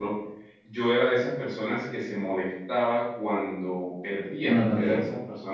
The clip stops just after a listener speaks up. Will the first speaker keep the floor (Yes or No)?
Yes